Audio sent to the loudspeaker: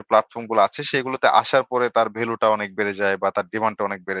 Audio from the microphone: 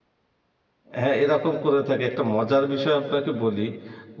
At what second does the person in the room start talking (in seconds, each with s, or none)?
1.0 s